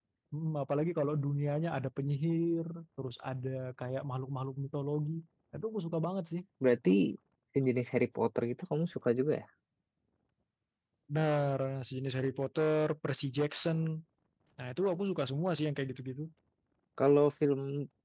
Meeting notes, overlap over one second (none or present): none